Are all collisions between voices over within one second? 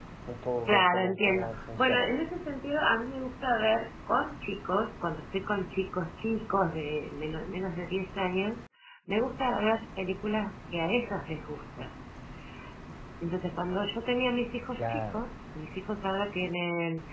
No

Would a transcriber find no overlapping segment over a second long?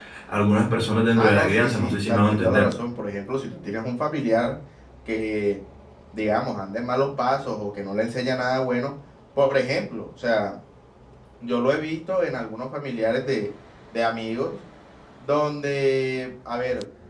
No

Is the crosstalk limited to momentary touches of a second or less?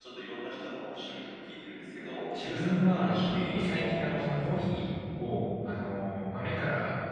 No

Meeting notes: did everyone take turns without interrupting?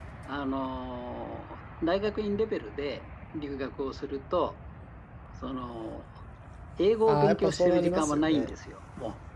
No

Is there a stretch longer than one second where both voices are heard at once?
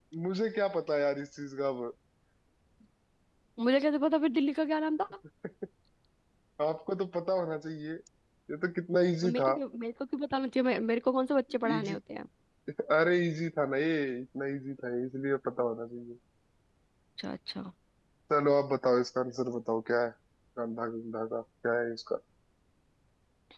No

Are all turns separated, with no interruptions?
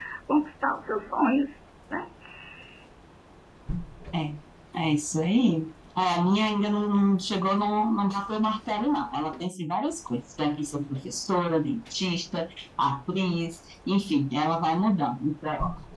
Yes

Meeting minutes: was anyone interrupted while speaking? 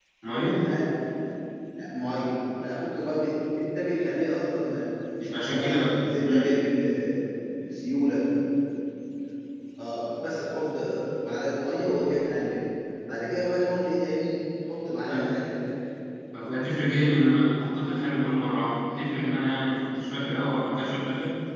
Yes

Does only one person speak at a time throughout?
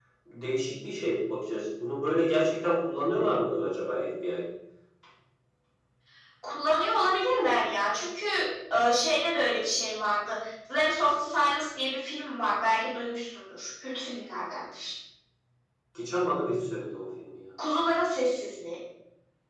Yes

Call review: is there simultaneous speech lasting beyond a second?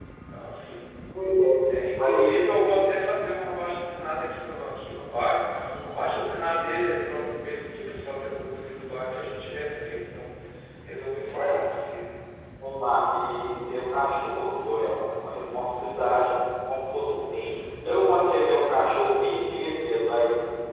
No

